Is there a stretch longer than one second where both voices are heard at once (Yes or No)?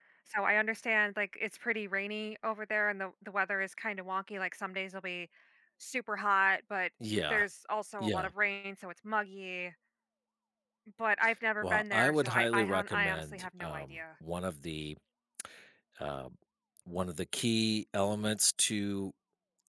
Yes